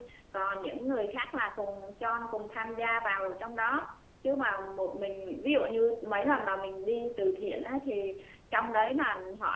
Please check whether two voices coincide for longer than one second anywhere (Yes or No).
No